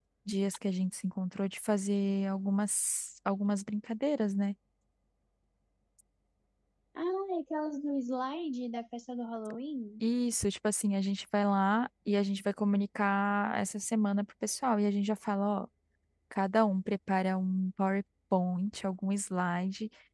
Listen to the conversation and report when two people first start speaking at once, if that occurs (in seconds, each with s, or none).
none